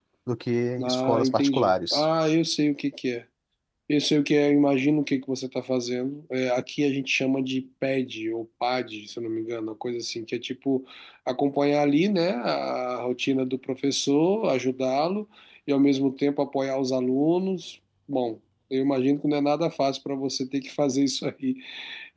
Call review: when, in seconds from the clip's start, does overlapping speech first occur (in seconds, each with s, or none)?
0.8 s